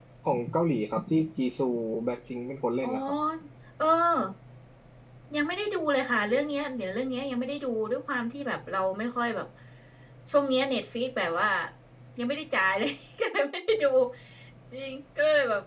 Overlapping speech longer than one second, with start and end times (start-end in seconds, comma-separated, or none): none